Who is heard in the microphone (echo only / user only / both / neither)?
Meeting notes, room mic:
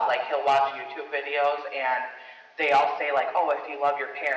echo only